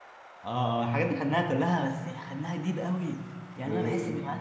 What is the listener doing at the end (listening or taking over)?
listening